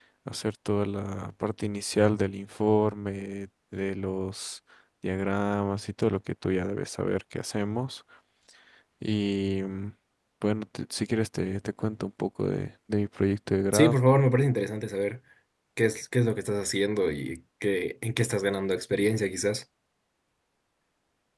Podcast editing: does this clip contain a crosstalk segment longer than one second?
No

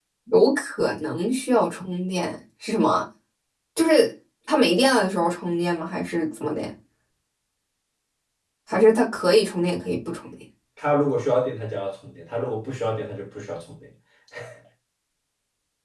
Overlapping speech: No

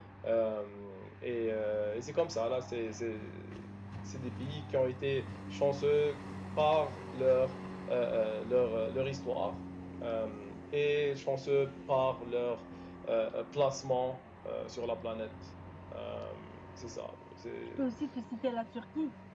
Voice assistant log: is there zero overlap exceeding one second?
Yes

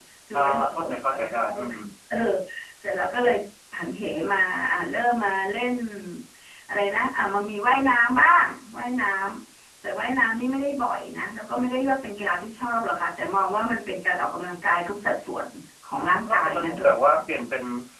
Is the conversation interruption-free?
No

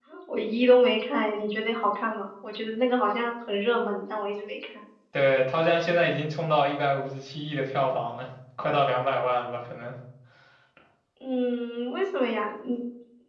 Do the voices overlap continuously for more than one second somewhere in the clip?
No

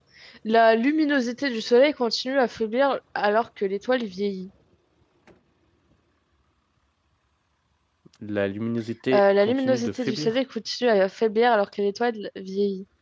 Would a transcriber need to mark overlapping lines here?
Yes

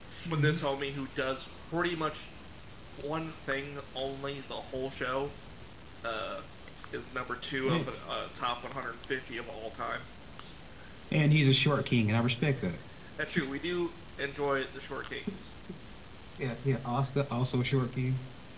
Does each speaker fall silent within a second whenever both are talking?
Yes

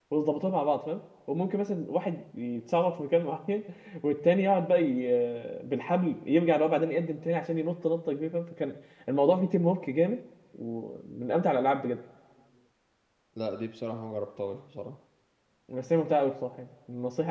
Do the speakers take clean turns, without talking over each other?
Yes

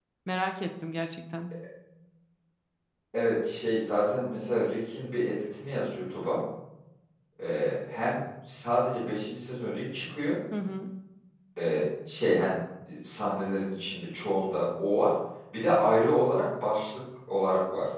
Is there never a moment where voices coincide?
Yes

